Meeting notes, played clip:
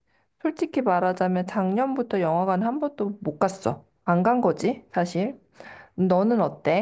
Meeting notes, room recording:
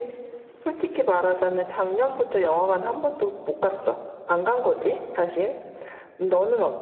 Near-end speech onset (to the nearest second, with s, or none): none